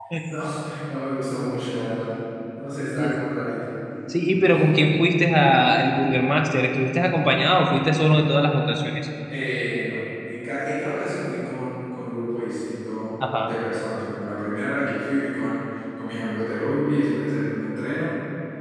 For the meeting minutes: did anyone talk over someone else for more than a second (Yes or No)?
No